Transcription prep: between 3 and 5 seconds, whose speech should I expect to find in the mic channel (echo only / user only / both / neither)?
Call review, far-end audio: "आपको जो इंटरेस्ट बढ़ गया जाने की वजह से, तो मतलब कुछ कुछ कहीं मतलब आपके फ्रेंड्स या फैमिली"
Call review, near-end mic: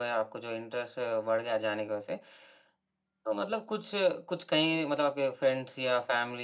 echo only